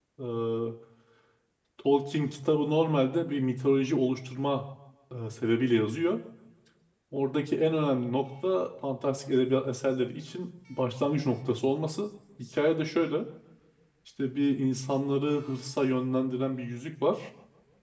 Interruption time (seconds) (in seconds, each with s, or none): none